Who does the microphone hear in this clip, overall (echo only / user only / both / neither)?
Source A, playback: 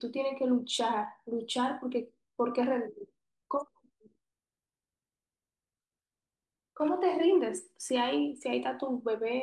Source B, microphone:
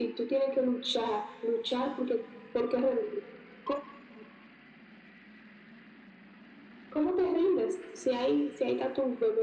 echo only